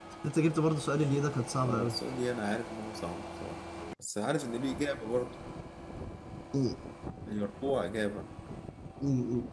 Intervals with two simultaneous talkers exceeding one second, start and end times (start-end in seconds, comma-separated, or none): none